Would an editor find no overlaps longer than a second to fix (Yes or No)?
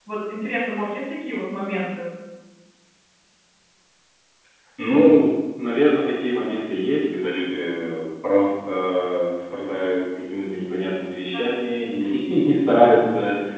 Yes